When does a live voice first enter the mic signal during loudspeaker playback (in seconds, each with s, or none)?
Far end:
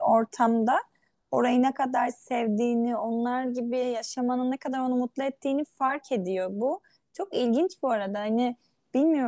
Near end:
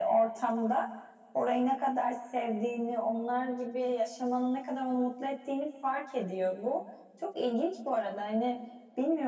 none